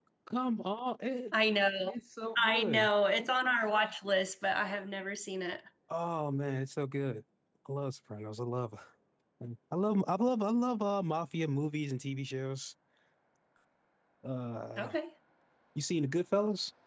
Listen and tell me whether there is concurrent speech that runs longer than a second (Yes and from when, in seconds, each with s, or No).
No